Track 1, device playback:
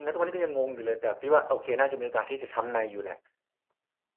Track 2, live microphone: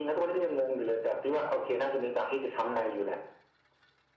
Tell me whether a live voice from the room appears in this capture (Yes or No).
No